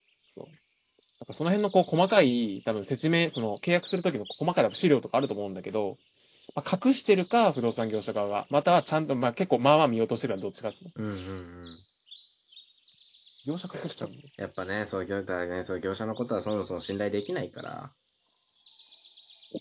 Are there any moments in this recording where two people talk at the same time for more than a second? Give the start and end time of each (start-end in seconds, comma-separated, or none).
none